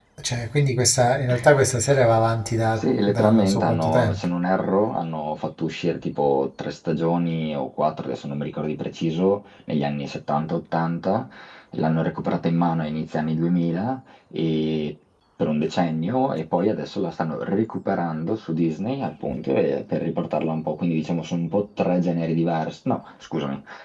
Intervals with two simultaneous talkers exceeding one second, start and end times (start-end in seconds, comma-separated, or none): 2.8-4.3